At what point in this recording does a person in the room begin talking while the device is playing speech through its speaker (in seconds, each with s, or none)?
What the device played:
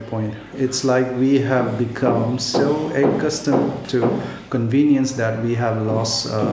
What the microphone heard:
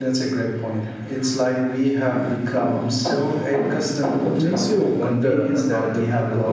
4.2 s